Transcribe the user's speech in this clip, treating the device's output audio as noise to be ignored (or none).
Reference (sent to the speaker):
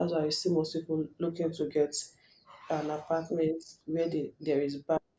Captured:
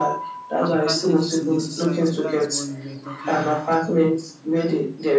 advantages in the society. That's what we were talking about.